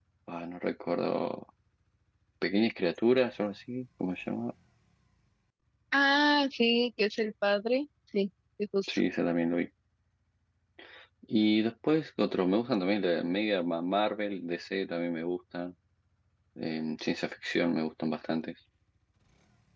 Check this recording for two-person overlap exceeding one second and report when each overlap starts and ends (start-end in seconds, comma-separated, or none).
none